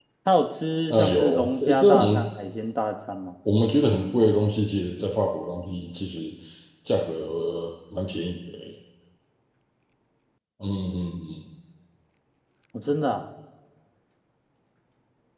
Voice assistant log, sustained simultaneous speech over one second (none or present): present